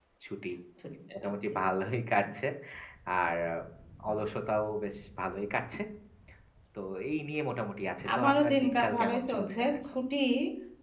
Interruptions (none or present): present